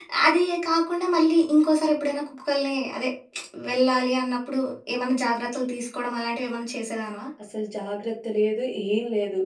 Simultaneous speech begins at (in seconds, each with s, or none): none